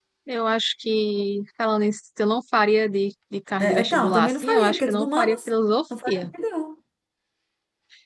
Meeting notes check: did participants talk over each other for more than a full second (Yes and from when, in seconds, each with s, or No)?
Yes, from 3.6 s